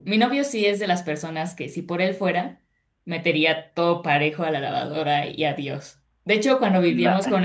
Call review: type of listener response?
listening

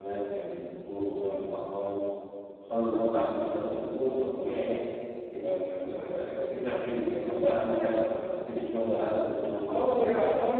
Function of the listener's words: taking over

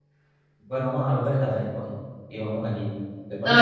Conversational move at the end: taking over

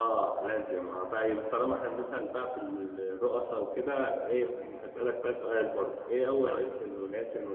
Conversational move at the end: listening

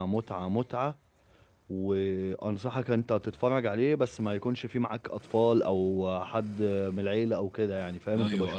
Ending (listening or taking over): taking over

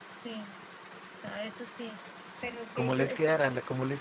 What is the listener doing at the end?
taking over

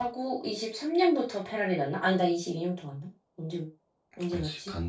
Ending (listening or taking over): taking over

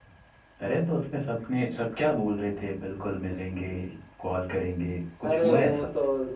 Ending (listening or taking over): taking over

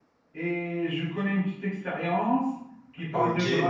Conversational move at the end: listening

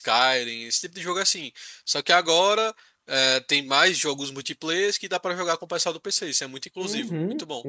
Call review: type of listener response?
taking over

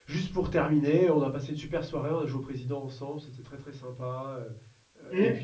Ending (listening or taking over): listening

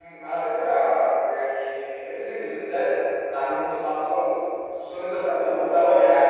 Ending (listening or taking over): listening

